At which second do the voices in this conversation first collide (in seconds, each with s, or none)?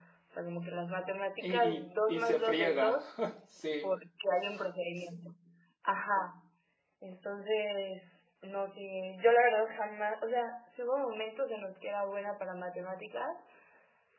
1.4 s